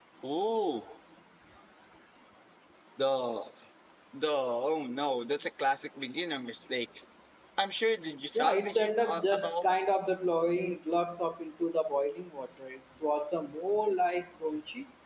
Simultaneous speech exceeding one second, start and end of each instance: 8.3-9.7

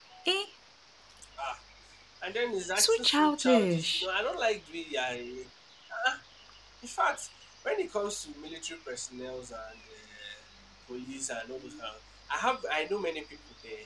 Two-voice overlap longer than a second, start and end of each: 2.8-4.1

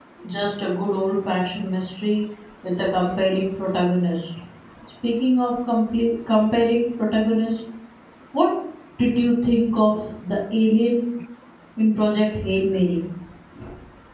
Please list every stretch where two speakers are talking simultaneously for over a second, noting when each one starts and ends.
none

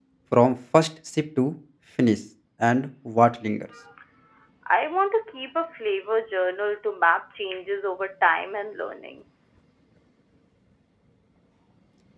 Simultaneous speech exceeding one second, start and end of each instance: none

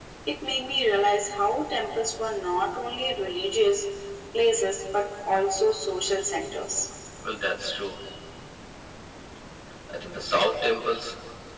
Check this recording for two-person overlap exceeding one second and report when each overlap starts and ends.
none

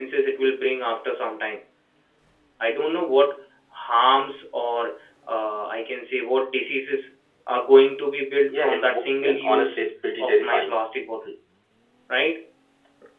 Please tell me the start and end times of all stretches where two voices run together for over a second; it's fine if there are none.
8.5-9.8

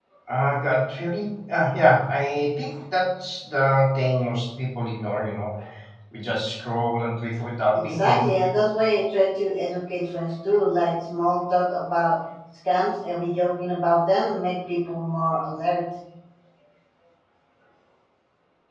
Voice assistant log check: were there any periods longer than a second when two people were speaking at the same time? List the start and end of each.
none

